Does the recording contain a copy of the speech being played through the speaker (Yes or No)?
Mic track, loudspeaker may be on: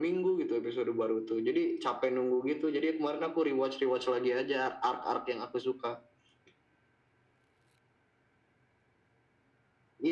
Yes